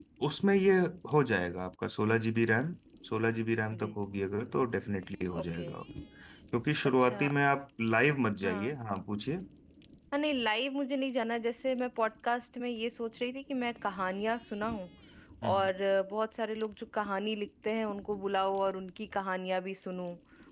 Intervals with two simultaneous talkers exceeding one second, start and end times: none

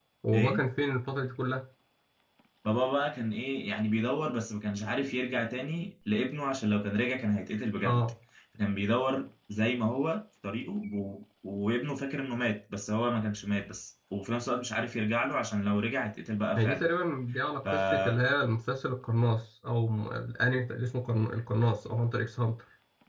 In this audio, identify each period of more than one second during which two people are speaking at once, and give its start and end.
none

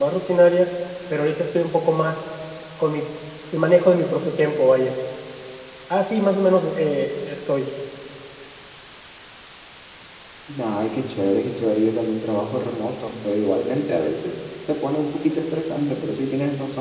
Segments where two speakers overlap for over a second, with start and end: none

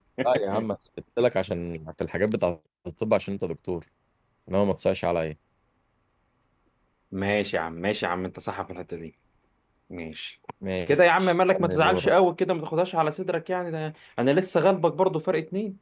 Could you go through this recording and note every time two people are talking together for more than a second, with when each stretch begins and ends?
10.9-12.1

